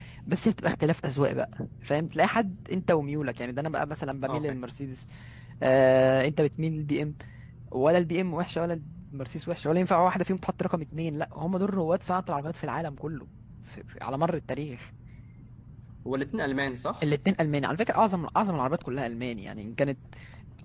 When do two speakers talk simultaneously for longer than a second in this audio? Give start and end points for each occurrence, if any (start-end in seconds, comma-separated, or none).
none